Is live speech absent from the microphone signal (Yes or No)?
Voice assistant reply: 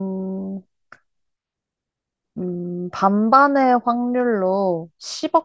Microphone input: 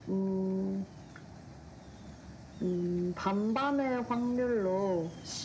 Yes